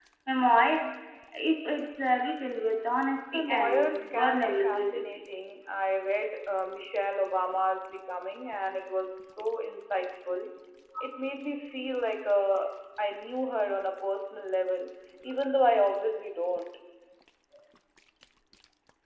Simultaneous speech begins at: 3.3 s

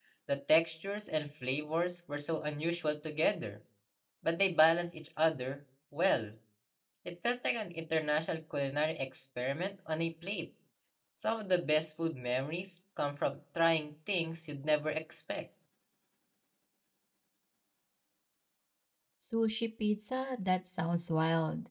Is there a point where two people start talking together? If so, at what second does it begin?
none

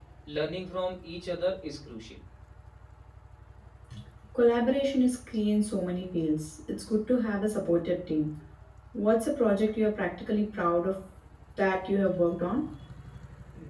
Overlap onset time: none

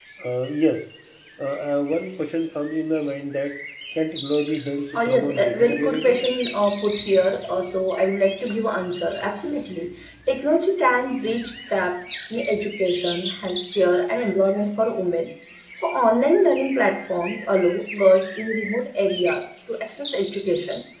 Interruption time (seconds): 5.0 s

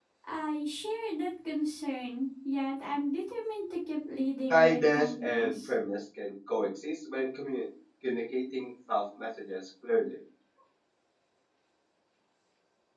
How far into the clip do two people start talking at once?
4.5 s

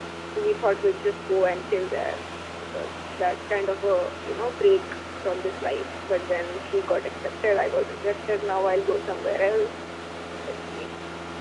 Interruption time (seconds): none

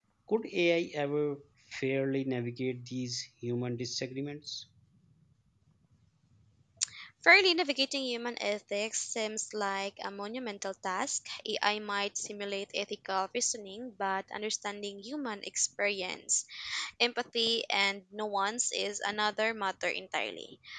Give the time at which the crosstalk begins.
none

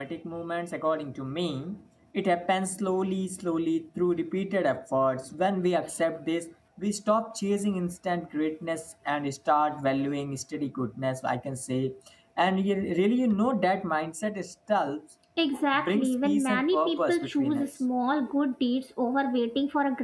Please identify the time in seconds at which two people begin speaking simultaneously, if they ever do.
15.7 s

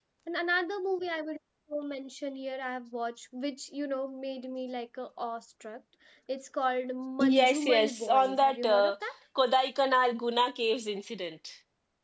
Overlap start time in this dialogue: 7.2 s

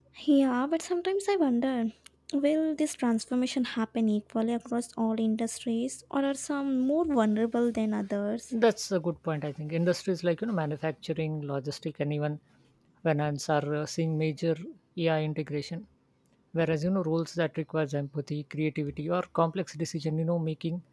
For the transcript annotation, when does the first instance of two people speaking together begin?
none

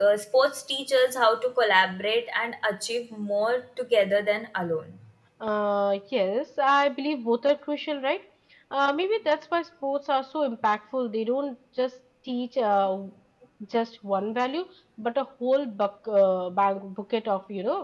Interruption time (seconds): none

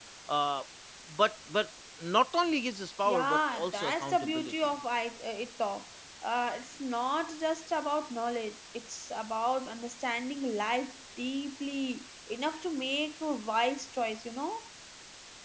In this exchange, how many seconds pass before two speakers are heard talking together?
3.0 s

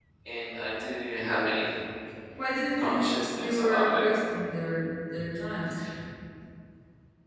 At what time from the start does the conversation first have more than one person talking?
2.8 s

